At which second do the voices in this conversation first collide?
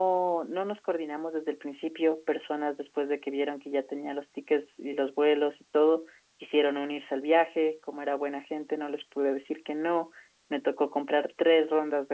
none

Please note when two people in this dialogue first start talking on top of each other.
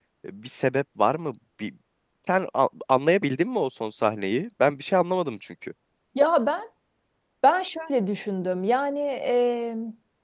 none

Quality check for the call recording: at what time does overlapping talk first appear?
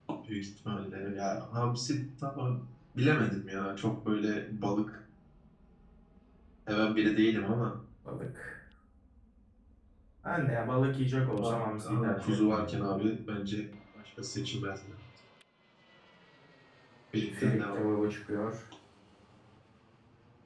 11.4 s

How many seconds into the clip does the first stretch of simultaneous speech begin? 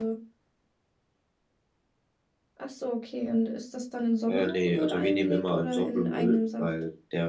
4.3 s

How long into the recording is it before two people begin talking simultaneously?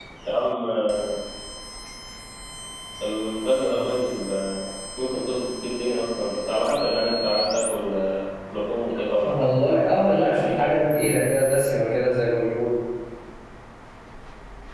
9.2 s

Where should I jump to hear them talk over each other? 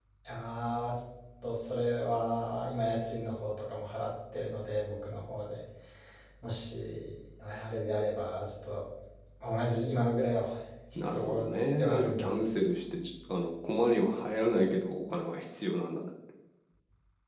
10.9 s

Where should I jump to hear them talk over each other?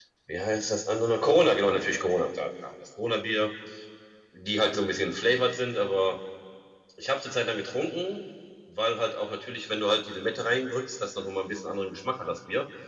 none

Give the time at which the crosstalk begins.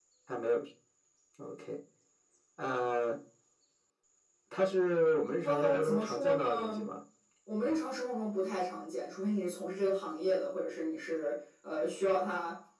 5.4 s

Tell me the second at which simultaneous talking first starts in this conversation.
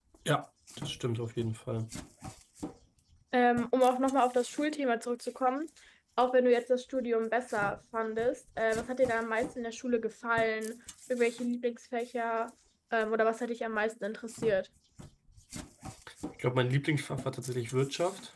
none

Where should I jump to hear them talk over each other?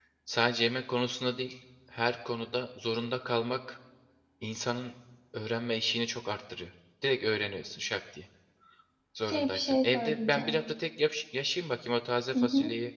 9.3 s

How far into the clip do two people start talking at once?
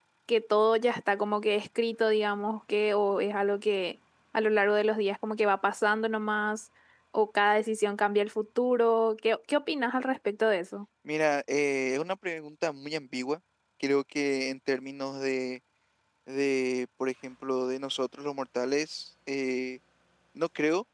none

